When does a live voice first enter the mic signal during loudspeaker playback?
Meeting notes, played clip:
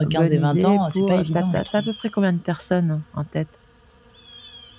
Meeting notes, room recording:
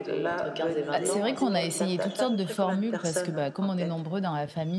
0.9 s

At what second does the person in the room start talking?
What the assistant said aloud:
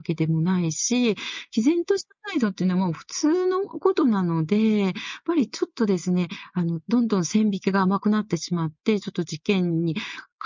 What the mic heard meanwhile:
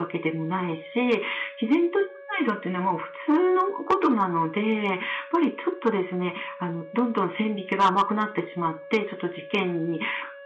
none

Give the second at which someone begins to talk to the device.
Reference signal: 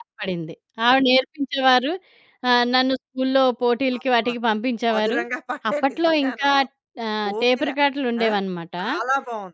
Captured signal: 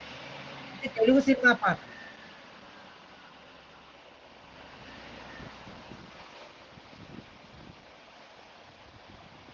0.7 s

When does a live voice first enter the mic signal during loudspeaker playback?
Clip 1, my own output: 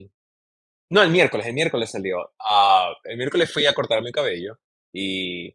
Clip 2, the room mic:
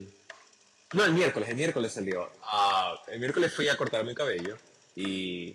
none

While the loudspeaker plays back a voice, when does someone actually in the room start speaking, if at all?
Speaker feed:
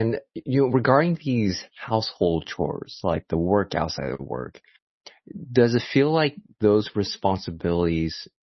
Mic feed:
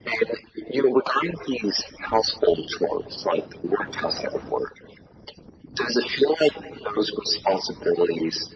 none

